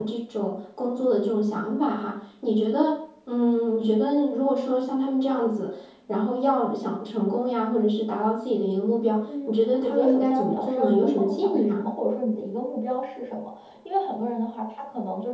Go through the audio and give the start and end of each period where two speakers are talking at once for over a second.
9.2-11.9

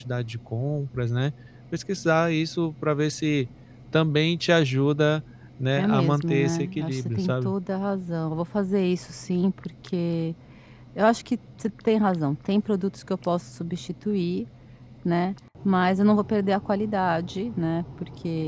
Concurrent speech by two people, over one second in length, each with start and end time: 5.8-7.5

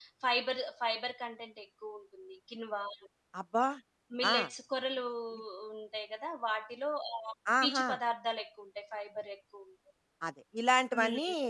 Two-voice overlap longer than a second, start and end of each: none

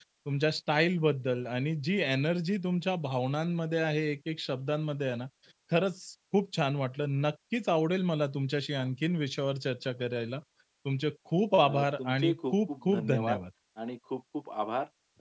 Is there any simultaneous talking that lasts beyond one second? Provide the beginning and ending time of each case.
11.6-13.4

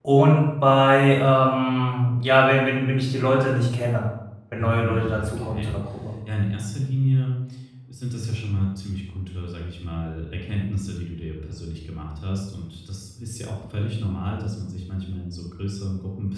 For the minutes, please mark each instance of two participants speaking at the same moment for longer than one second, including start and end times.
4.6-5.8

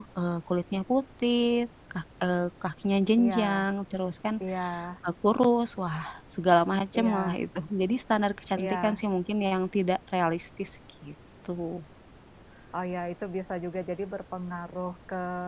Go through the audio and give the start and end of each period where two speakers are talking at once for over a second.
none

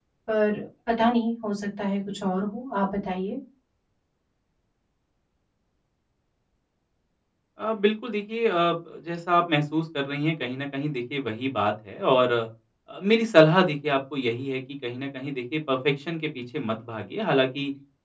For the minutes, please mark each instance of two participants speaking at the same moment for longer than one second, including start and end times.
none

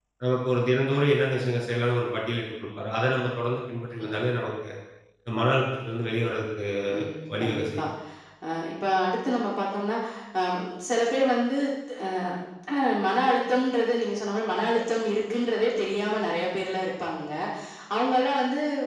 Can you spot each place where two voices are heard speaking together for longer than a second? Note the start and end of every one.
none

